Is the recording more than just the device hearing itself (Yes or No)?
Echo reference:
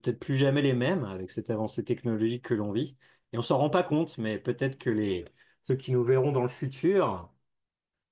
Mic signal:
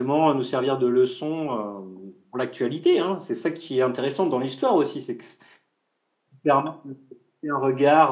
Yes